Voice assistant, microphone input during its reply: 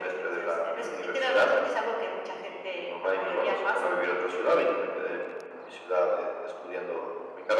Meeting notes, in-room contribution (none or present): none